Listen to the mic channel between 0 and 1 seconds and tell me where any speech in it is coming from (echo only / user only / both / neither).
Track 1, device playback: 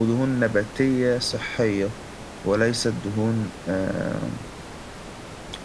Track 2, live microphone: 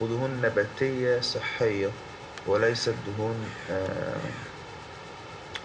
echo only